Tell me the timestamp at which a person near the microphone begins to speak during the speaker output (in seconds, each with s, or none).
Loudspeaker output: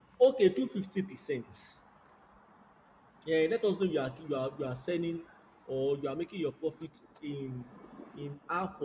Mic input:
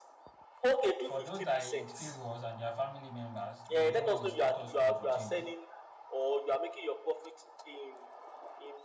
1.0 s